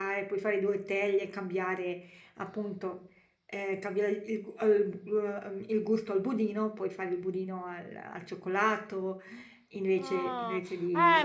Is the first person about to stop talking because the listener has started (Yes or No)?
Yes